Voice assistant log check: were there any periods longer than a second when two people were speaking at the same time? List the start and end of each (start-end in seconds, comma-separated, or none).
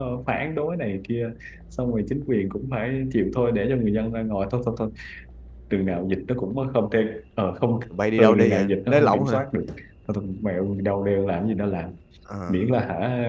8.2-9.4